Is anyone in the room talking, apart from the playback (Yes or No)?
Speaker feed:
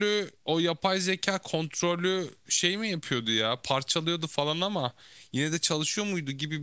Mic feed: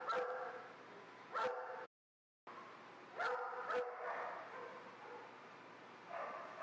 No